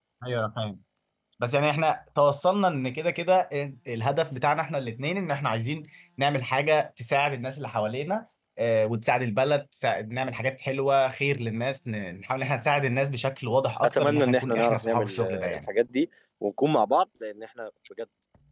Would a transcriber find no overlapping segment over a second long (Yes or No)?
No